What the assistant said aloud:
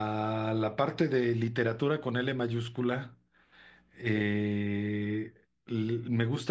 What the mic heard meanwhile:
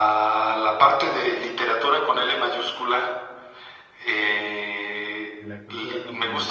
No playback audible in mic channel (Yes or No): No